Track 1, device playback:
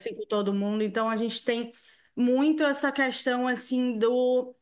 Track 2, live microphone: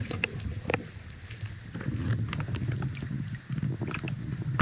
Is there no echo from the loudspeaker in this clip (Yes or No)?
Yes